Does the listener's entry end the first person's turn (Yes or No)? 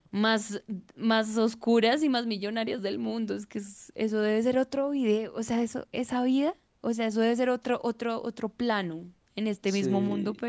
No